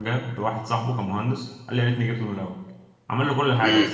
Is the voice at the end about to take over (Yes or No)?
No